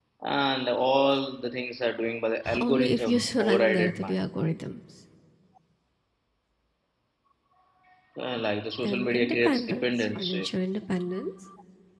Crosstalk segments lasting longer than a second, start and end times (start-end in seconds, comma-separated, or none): 2.6-4.2, 8.8-10.5